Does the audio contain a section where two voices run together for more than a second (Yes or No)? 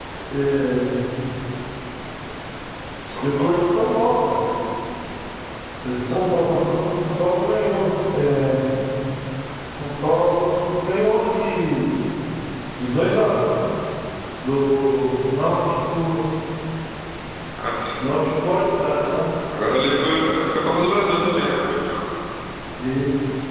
No